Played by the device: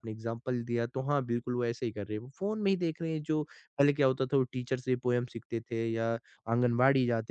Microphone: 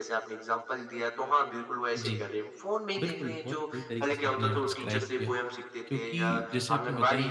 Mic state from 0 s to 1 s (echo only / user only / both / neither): echo only